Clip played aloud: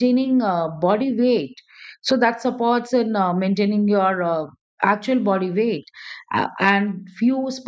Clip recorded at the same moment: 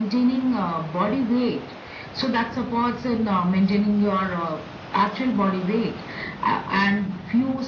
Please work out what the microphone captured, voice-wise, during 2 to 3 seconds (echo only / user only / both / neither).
echo only